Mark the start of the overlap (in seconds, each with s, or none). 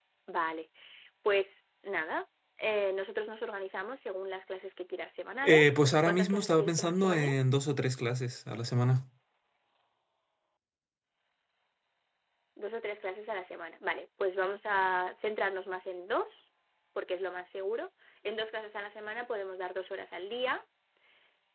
5.4 s